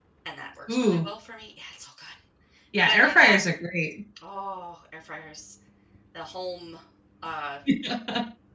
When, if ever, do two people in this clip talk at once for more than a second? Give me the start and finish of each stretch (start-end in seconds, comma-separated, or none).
none